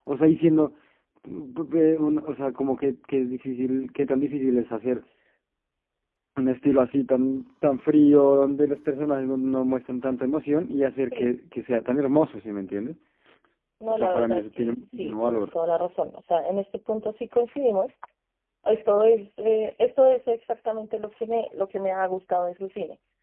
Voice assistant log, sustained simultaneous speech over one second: present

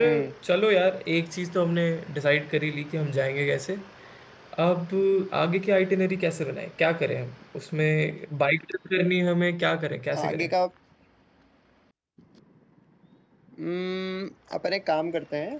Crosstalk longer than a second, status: none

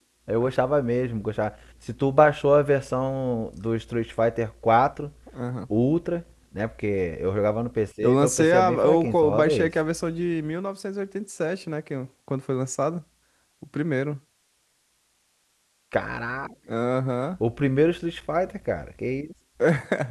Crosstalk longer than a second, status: present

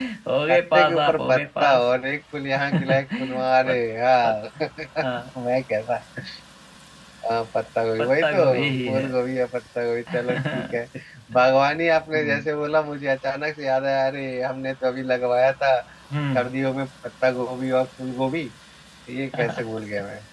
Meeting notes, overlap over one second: present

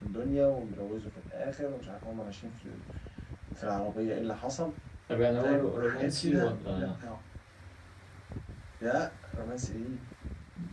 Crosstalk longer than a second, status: present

